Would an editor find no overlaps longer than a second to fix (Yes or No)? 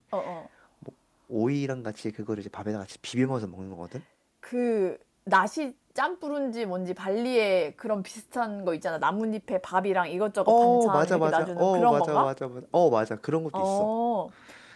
No